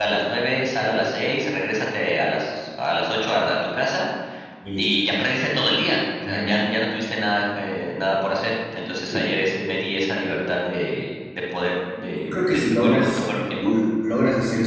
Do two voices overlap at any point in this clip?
Yes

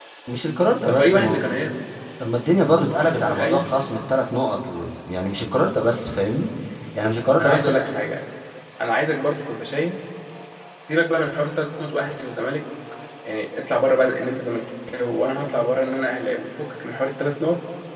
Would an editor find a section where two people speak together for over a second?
No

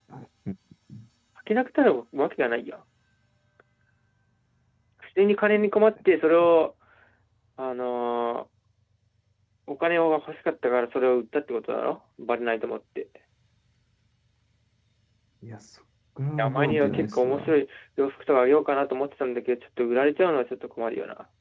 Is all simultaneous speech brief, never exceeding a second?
No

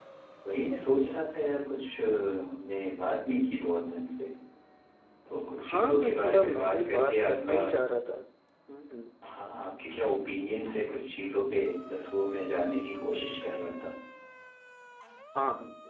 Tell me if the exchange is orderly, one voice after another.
No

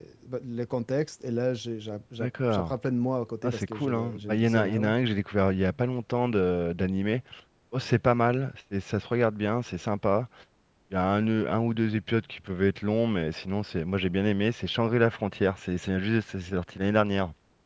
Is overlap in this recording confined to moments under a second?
No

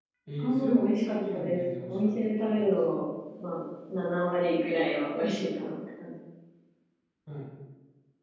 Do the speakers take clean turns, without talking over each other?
No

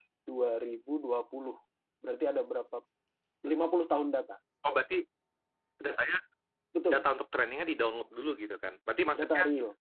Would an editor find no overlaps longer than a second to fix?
Yes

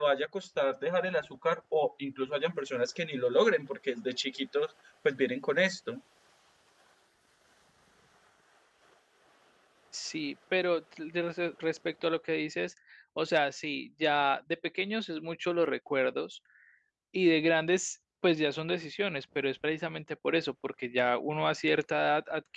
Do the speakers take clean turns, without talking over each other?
Yes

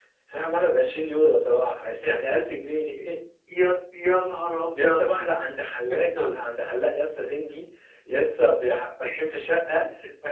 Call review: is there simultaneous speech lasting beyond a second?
No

